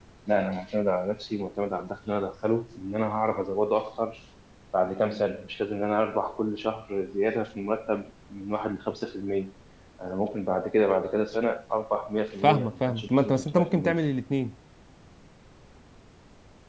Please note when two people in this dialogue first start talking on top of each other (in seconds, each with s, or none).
12.4 s